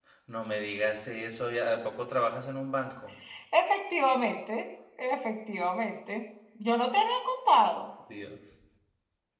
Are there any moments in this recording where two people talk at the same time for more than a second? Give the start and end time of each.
none

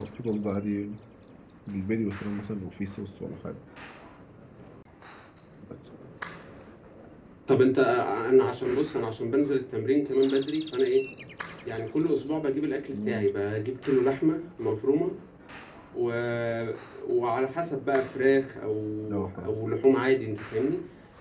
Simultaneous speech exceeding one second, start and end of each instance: none

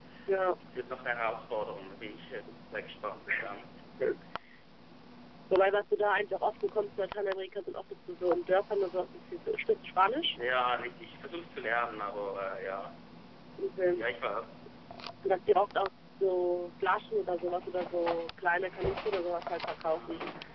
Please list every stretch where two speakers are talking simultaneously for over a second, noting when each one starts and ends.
none

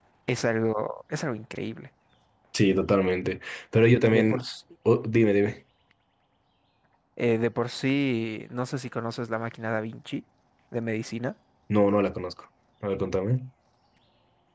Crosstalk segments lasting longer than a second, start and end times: none

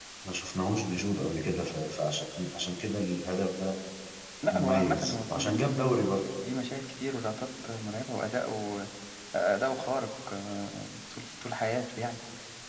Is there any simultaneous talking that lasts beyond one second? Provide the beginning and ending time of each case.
4.5-6.0

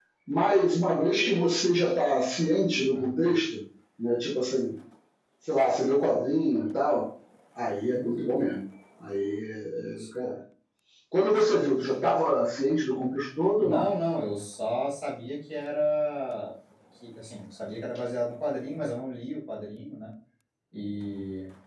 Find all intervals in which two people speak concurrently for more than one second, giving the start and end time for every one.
none

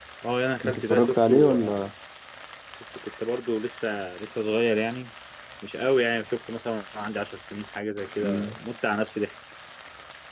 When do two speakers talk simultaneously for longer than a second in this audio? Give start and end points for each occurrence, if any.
0.7-1.9

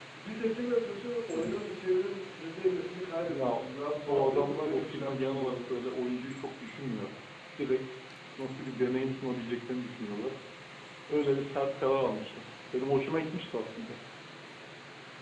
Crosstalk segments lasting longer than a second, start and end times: 4.1-5.8

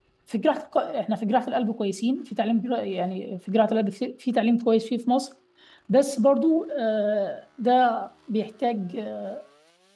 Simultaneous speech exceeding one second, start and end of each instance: none

